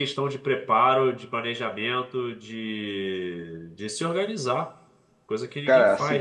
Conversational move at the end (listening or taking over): taking over